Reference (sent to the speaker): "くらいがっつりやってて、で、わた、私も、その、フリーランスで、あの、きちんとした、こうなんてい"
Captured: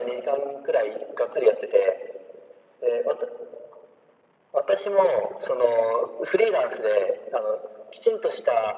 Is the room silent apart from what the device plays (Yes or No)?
Yes